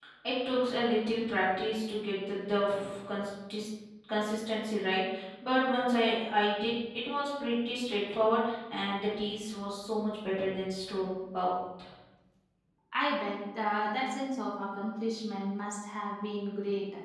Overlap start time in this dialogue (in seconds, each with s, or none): none